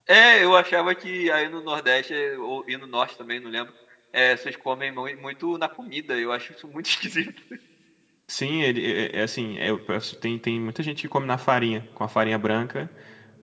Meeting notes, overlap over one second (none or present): none